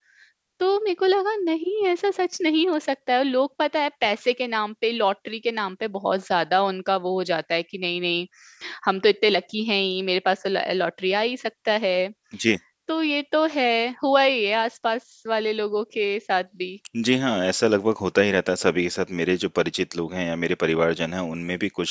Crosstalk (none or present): none